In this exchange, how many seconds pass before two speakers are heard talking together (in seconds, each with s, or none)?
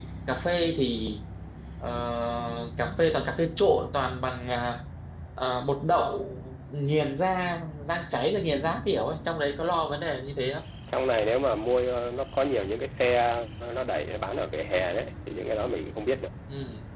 none